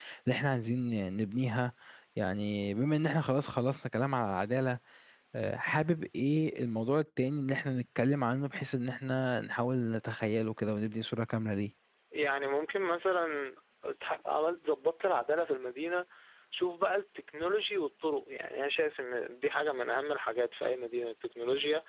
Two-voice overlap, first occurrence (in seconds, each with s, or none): none